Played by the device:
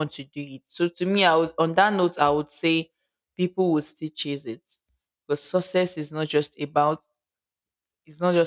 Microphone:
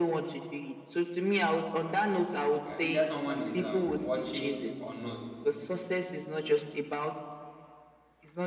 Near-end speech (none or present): present